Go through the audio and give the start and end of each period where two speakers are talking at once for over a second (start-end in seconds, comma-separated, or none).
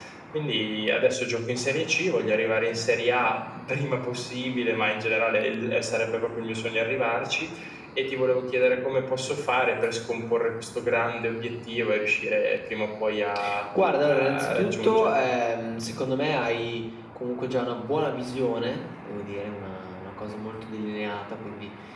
14.0-15.3